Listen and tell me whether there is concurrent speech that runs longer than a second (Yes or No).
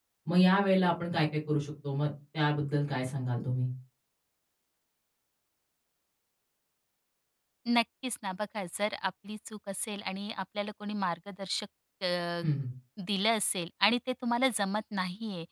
No